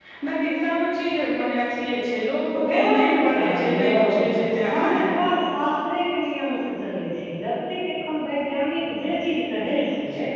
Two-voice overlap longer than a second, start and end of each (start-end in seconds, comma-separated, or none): 2.5-5.0